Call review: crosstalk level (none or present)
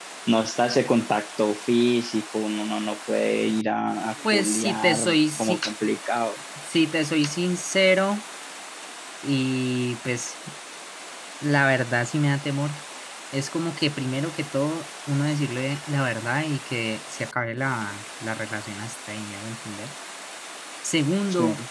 present